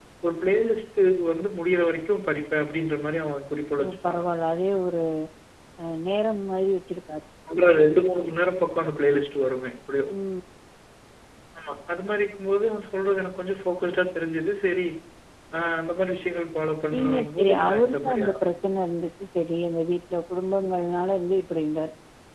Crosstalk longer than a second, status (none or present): present